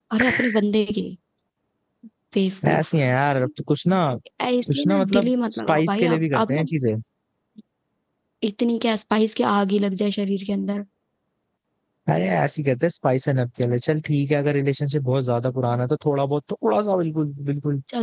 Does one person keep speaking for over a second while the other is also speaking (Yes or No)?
Yes